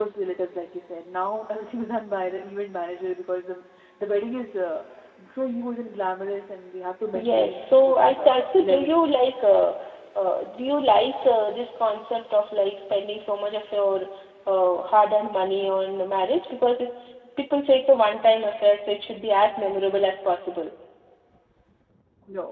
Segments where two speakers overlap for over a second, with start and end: 7.2-8.9

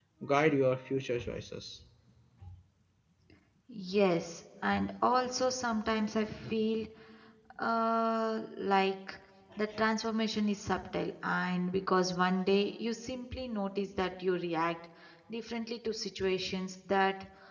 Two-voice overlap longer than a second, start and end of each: none

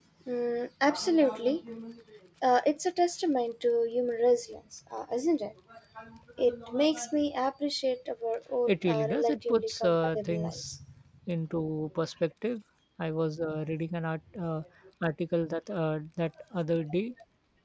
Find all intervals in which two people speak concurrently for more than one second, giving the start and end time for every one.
8.7-10.7

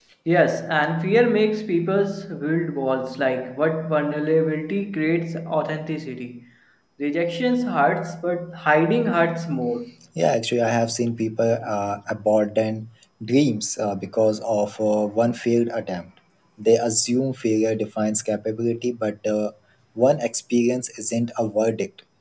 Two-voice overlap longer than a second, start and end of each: none

